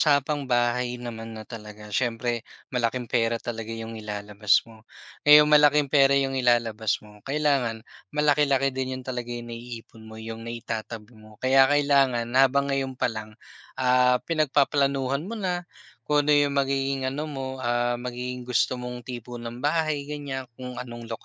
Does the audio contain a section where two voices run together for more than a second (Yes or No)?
No